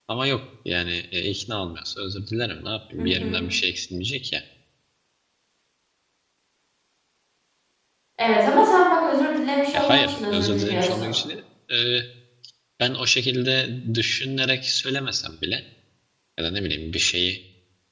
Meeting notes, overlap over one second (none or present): present